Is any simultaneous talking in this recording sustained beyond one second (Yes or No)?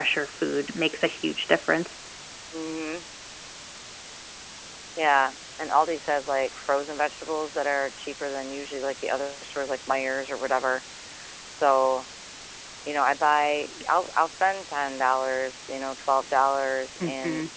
No